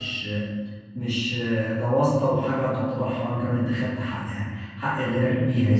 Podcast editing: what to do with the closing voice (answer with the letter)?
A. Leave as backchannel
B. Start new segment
B